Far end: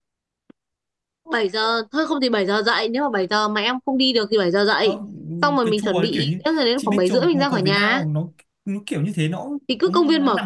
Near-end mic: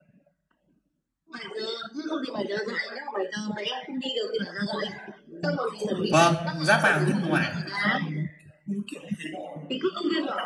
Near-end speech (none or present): present